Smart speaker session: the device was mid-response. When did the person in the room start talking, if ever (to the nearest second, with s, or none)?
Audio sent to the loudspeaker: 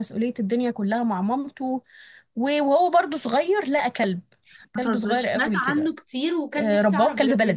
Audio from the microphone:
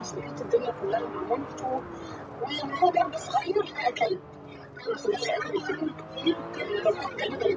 none